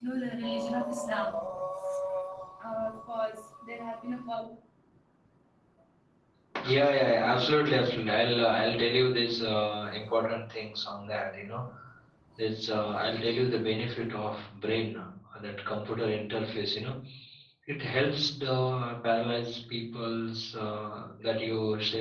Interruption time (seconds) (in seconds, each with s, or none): none